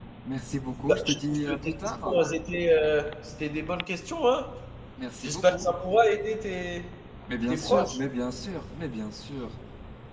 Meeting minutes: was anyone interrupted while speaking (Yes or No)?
Yes